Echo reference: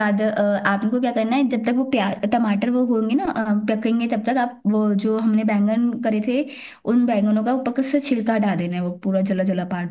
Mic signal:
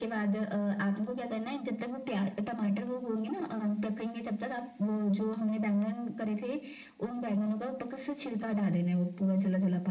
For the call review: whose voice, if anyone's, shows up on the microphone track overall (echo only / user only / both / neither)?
echo only